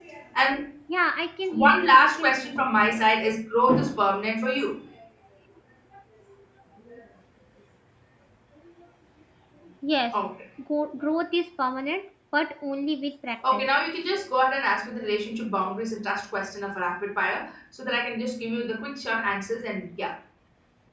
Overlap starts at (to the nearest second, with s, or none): 2 s